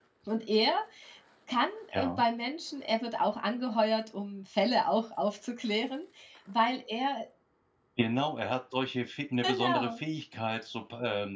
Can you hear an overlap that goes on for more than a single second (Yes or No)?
No